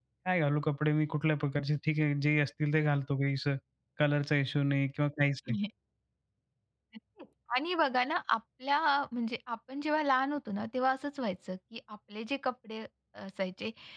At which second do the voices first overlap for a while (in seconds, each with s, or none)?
none